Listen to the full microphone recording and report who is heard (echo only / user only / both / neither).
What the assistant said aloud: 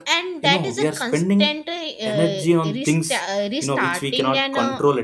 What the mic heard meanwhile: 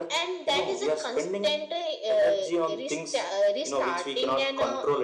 echo only